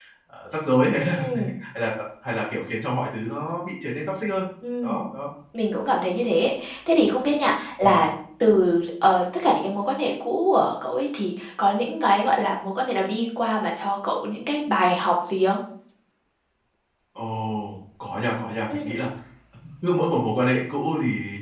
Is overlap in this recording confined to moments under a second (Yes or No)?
Yes